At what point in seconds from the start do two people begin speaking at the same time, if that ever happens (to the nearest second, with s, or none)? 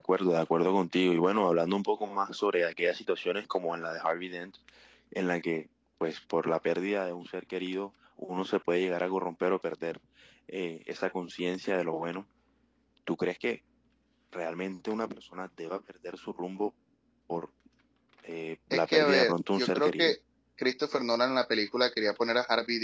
19 s